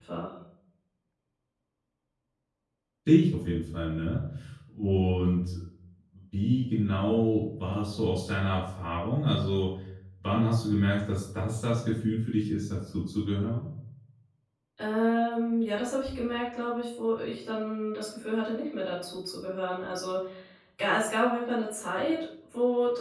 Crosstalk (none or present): none